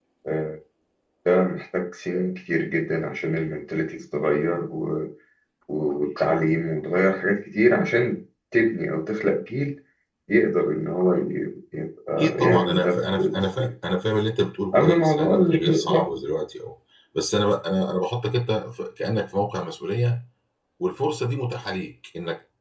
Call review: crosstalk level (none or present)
present